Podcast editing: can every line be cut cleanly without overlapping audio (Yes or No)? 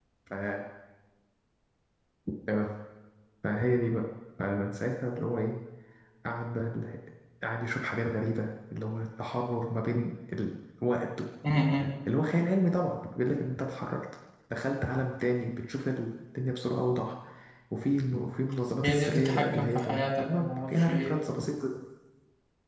No